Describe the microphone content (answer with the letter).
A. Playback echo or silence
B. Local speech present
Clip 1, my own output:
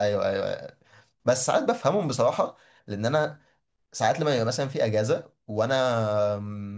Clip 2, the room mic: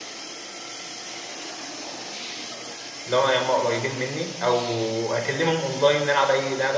B